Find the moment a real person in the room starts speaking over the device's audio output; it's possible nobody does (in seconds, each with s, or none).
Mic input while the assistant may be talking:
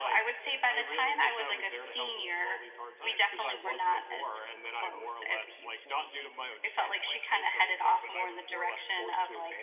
none